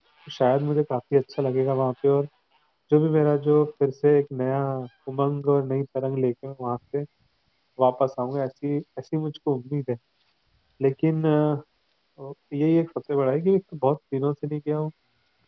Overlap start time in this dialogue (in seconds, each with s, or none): none